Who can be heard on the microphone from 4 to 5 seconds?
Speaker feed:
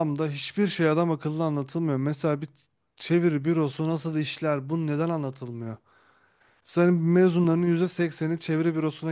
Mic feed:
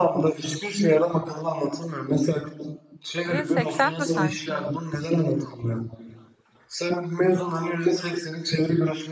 both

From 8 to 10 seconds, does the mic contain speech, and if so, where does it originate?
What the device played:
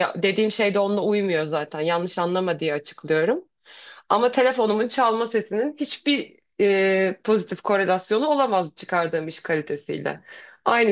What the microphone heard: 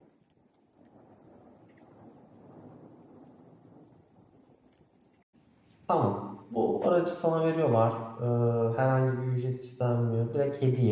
user only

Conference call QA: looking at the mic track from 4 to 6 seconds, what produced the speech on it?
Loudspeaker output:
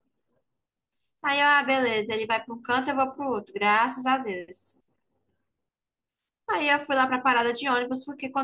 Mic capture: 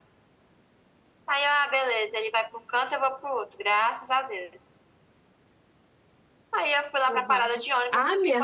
echo only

